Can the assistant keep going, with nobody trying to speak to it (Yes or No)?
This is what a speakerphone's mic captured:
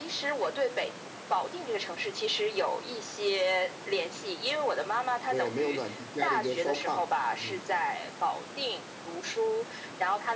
No